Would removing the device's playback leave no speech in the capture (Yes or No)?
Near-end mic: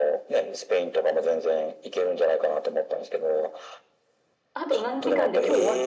No